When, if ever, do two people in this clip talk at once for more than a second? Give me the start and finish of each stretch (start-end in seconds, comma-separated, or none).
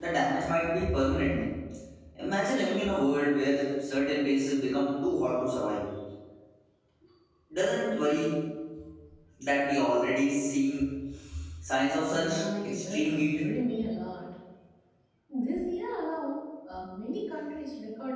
12.1-13.4